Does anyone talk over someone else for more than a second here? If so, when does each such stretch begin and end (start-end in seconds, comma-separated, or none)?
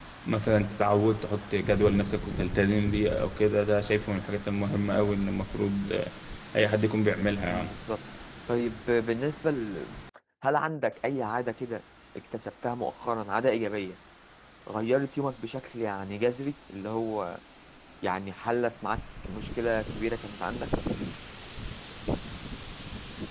none